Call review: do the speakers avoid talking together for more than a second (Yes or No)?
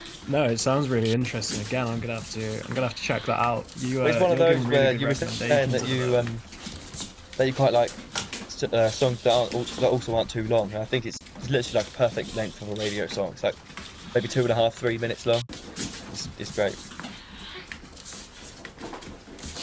No